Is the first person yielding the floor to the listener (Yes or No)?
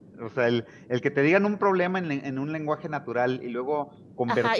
Yes